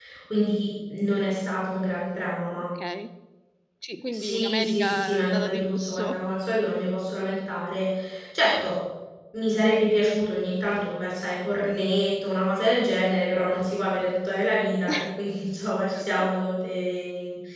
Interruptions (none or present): present